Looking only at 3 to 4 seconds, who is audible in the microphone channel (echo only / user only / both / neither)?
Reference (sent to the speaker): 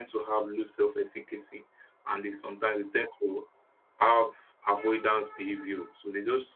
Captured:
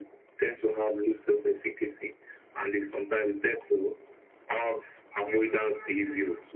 echo only